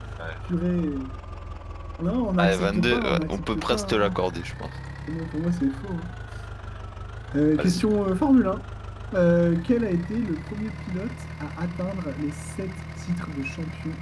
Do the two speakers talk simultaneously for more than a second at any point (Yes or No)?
Yes